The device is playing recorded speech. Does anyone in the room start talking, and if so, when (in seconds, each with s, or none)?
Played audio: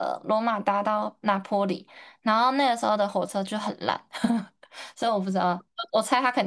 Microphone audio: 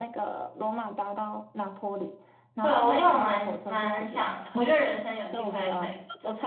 2.6 s